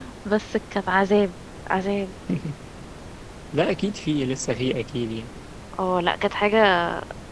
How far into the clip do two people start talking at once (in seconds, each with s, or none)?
none